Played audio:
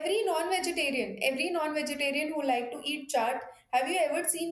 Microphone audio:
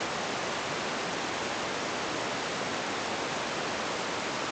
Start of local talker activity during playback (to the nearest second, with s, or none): none